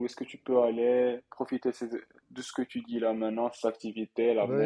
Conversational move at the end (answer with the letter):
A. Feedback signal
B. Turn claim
B